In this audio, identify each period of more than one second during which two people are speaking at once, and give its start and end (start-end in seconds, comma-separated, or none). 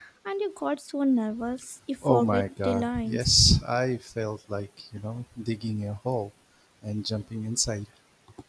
2.0-3.3